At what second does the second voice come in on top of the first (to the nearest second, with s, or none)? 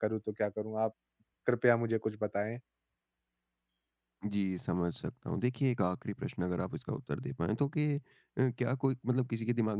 none